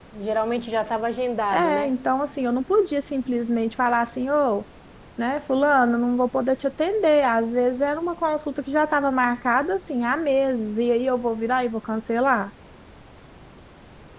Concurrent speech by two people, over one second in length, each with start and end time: none

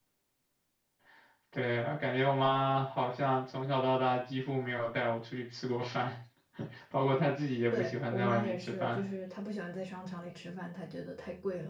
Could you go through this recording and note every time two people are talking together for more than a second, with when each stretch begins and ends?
7.7-9.0

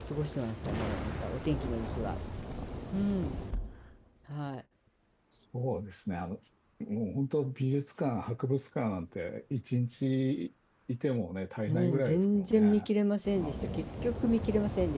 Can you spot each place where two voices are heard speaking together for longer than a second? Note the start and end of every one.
11.7-12.9

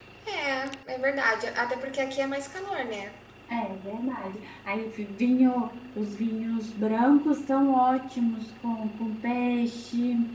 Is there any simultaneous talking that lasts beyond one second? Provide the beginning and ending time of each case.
none

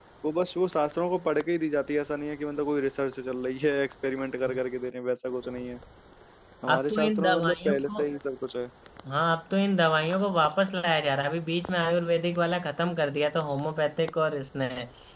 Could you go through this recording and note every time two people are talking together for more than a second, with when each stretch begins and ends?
6.7-8.0

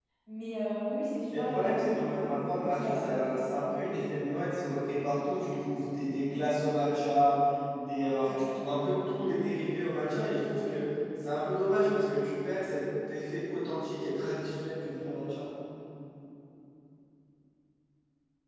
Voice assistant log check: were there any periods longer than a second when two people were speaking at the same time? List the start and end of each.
1.4-3.1

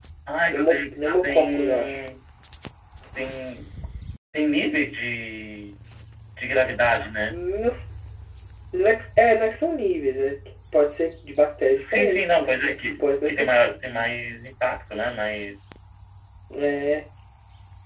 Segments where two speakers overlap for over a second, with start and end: 0.5-2.0, 11.9-13.8

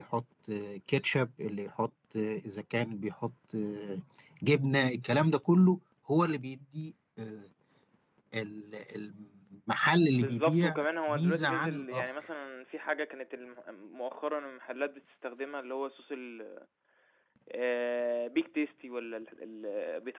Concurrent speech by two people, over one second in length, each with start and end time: 10.1-12.1

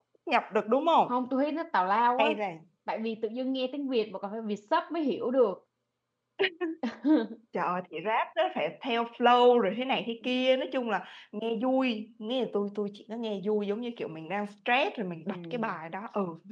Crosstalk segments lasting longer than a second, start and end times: none

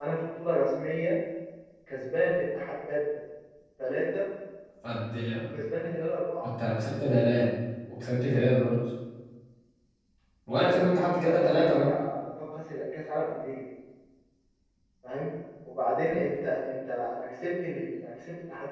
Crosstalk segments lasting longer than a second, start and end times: 10.5-11.9

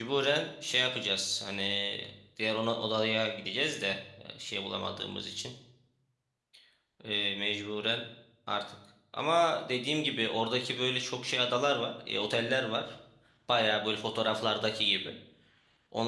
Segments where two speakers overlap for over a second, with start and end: none

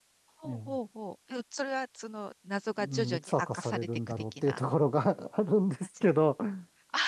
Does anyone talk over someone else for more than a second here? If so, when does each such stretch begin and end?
2.8-4.6

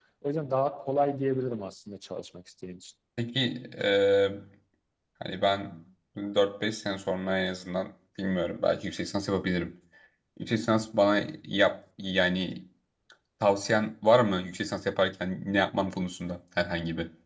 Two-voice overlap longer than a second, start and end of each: none

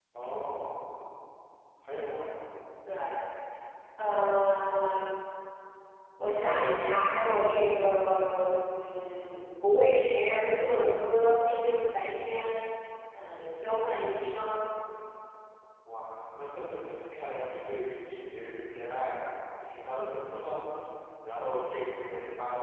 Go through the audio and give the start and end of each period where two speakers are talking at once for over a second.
none

